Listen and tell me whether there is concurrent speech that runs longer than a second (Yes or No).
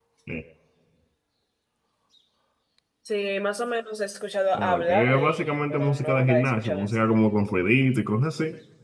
Yes